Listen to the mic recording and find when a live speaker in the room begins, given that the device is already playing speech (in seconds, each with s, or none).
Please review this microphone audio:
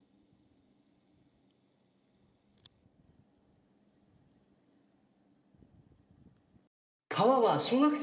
7.1 s